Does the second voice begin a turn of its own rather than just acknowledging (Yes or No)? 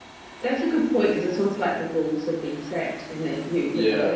No